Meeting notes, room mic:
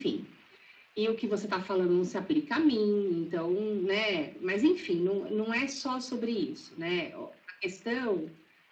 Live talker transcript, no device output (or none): none